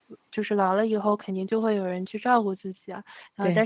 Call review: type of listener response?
listening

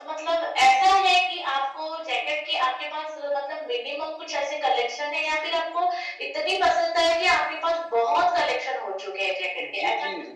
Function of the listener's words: taking over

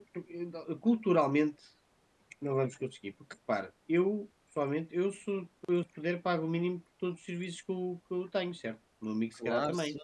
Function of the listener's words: taking over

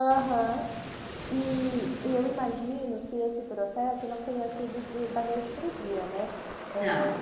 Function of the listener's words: listening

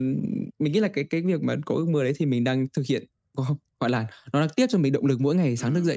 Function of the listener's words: taking over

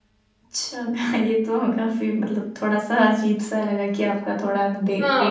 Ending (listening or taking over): taking over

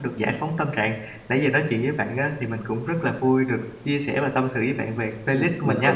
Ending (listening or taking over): taking over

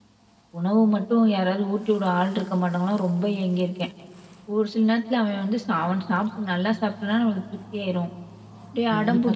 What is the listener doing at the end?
taking over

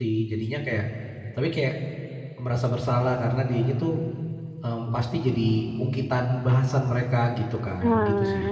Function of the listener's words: taking over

